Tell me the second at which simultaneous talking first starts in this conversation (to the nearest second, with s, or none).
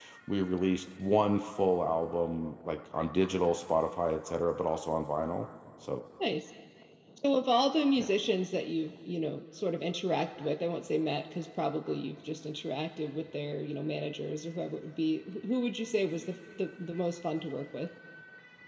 none